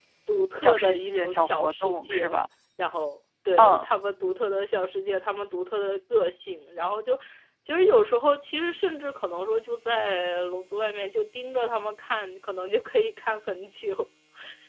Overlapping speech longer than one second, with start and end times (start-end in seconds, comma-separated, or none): 0.6-2.4